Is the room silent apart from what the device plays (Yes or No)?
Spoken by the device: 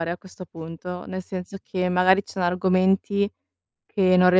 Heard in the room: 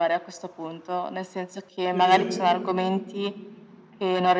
No